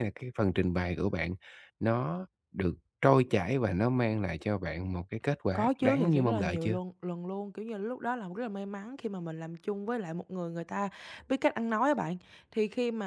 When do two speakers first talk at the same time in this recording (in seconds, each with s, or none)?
5.5 s